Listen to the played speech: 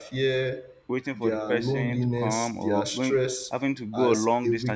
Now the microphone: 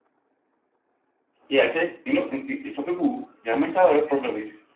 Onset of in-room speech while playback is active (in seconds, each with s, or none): 1.5 s